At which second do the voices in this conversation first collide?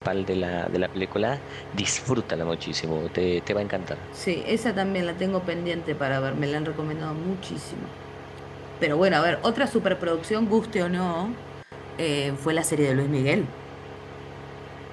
none

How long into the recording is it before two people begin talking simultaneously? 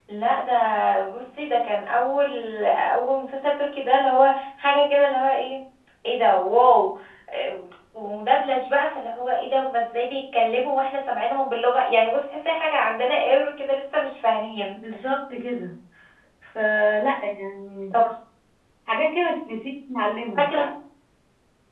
none

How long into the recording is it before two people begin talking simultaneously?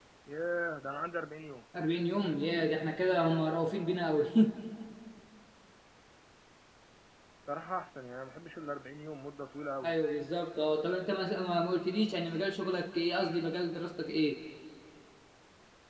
none

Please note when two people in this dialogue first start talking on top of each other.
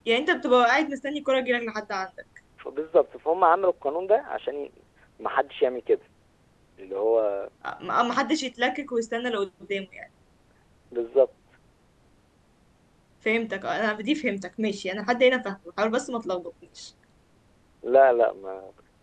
none

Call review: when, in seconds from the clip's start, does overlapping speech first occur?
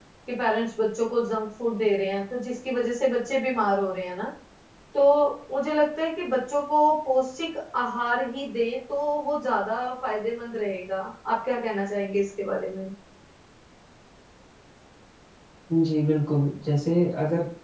none

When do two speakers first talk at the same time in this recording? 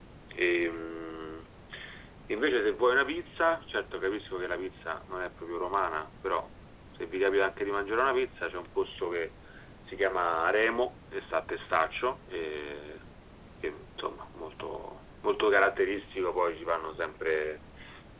none

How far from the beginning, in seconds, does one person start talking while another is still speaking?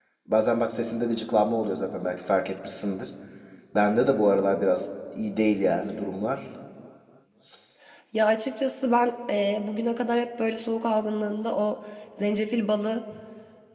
none

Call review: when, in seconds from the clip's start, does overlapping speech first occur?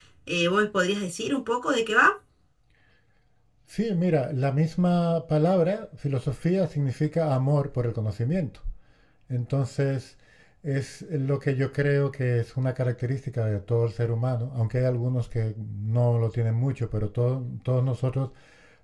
none

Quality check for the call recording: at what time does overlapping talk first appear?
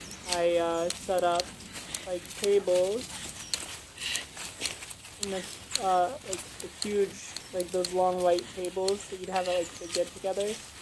none

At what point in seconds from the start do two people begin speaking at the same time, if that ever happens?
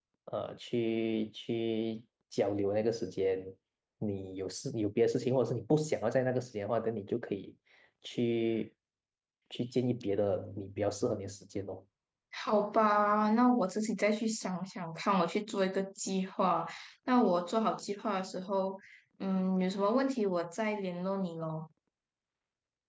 none

